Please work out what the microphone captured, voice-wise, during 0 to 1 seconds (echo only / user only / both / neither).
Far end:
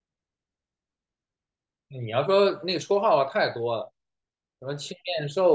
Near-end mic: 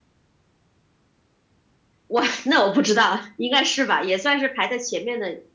neither